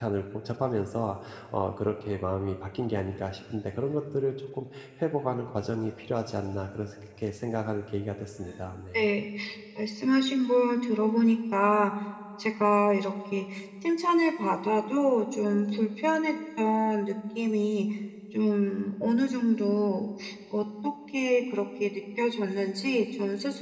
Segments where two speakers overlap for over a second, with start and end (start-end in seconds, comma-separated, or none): none